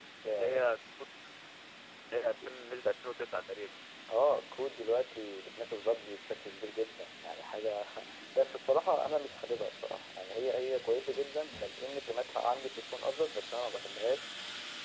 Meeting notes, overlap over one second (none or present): none